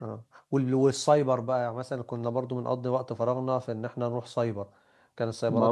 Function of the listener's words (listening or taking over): taking over